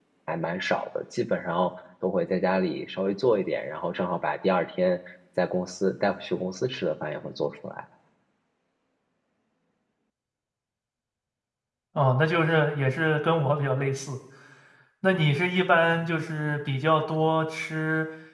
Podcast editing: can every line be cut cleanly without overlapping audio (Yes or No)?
Yes